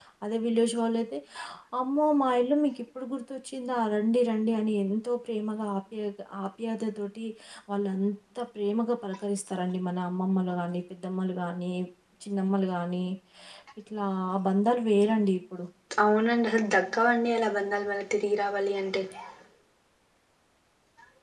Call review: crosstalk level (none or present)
none